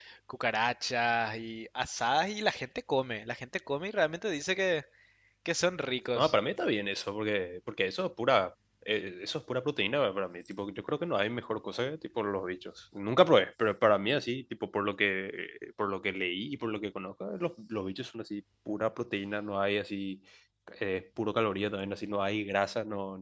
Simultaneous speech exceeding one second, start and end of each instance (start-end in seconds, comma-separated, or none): none